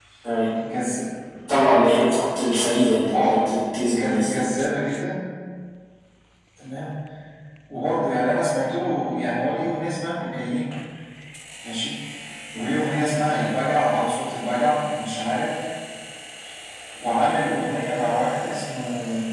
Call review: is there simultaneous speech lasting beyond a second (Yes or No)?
No